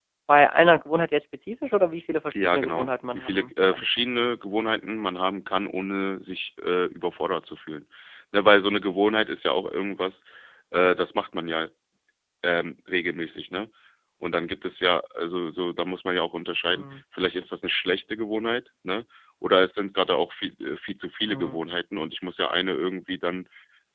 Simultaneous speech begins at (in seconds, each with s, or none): 2.4 s